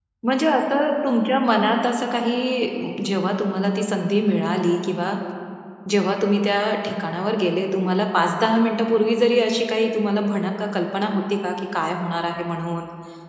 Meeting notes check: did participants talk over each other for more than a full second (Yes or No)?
No